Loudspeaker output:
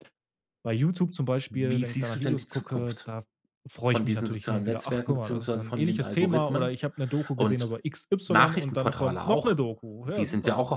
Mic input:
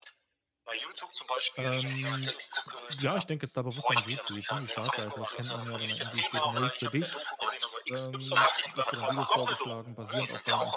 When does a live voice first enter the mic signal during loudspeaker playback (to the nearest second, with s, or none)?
2 s